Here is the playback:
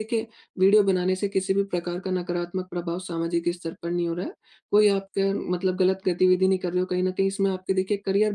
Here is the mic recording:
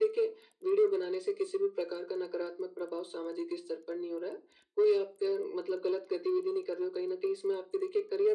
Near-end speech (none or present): none